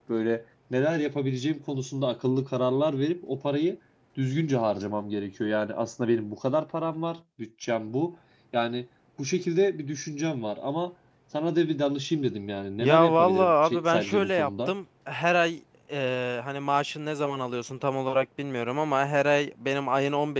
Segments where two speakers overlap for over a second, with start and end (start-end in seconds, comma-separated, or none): 12.8-14.7